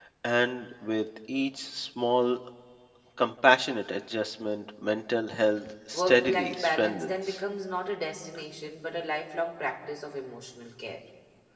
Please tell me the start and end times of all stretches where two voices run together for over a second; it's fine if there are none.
5.9-7.4

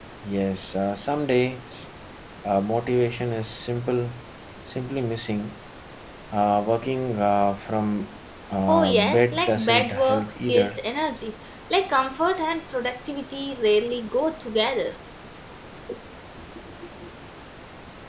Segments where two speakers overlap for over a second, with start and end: 8.7-10.8

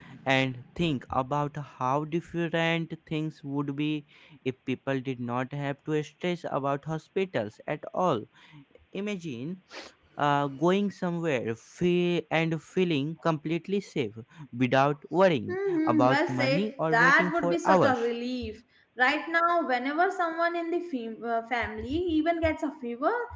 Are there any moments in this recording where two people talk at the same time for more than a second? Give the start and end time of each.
15.5-18.1

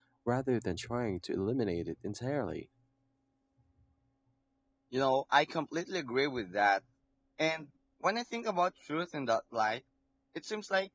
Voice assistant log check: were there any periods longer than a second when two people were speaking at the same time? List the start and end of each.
none

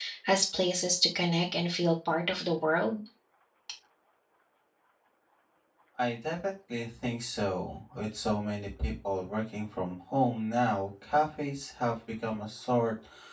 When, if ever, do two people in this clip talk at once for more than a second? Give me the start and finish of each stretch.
none

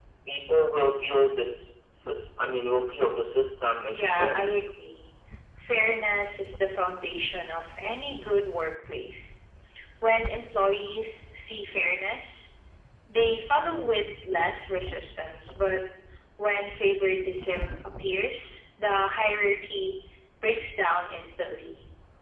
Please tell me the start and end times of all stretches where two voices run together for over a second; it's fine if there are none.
none

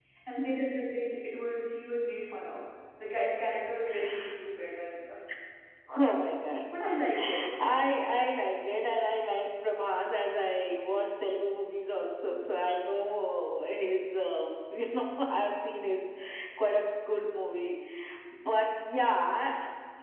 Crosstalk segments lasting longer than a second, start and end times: none

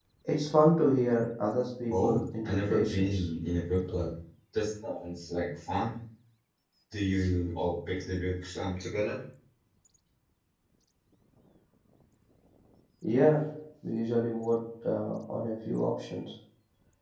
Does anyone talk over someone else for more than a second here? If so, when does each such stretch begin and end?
1.9-3.2

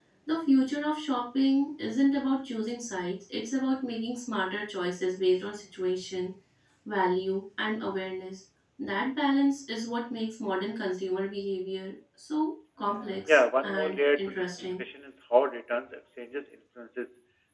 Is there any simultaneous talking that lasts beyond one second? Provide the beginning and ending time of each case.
13.3-14.8

